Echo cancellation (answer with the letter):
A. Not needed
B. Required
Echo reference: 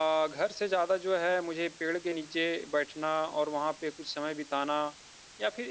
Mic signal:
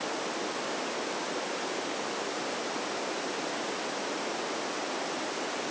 A